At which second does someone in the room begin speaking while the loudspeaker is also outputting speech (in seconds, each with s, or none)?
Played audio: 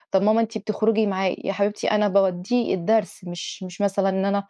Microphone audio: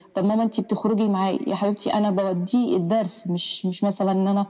none